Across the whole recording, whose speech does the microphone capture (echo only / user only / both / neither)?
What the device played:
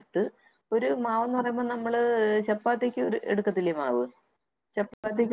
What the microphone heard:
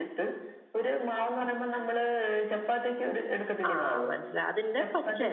both